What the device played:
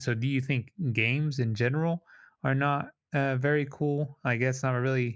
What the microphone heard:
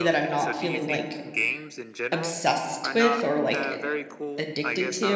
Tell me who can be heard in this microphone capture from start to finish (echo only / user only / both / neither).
both